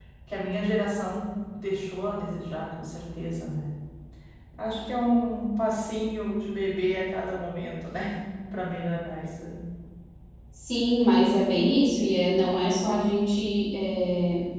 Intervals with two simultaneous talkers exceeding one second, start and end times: none

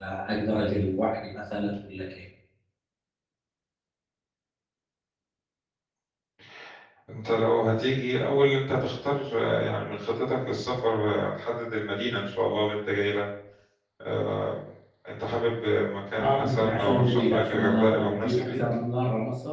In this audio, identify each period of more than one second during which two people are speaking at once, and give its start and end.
16.2-18.6

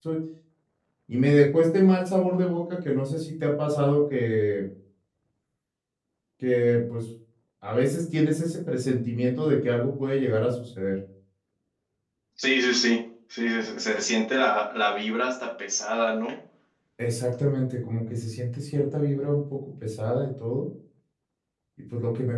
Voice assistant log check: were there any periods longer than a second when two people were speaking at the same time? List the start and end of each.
none

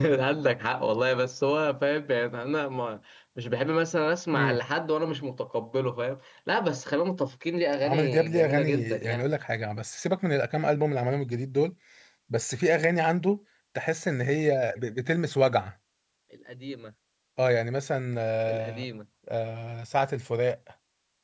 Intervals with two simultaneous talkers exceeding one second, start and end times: 7.8-9.3

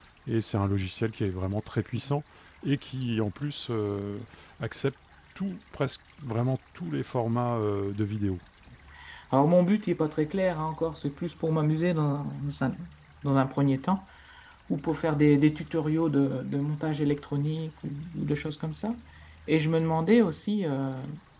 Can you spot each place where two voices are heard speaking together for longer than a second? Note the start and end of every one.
none

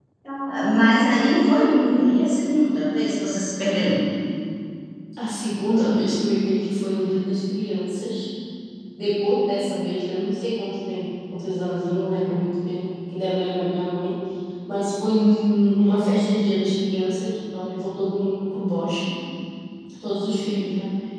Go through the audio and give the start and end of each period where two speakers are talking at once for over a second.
none

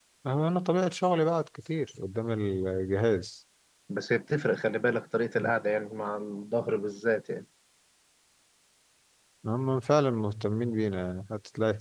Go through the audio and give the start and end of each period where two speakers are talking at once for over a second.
none

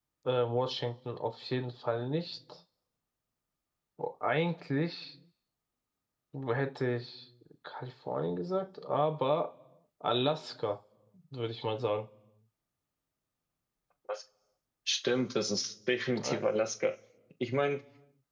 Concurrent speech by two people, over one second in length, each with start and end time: none

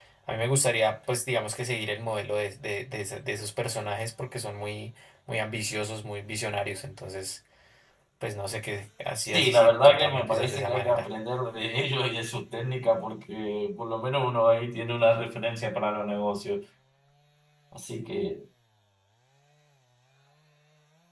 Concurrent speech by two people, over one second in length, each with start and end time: 9.3-11.1

